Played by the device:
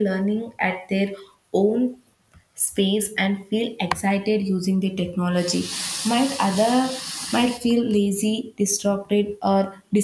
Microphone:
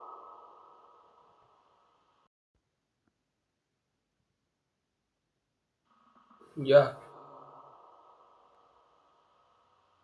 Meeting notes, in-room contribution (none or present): present